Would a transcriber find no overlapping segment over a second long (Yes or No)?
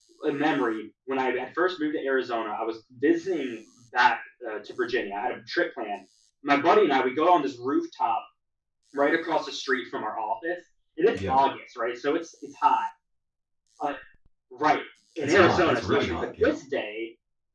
No